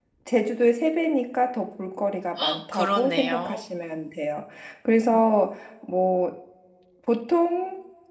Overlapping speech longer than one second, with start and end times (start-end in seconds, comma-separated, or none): 2.4-3.6